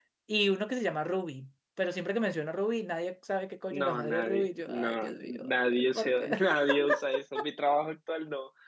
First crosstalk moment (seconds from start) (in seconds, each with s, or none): 3.7 s